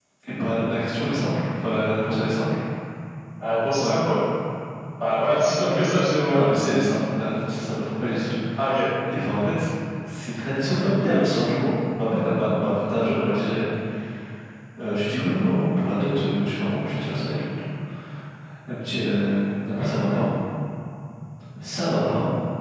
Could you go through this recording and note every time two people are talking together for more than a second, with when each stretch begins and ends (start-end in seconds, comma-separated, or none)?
none